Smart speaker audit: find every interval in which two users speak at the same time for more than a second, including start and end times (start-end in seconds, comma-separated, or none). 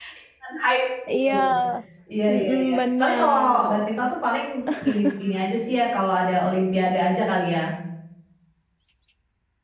2.3-3.6